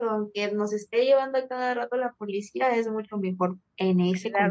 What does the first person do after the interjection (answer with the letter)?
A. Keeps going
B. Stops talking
B